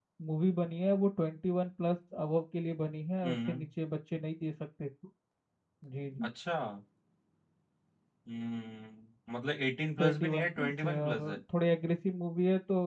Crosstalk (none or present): present